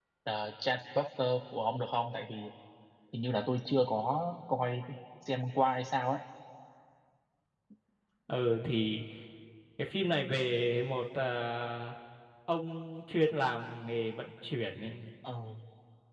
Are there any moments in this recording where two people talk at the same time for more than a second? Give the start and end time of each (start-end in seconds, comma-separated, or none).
none